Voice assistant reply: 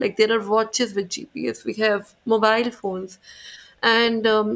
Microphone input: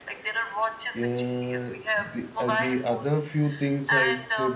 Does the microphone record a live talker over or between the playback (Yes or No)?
Yes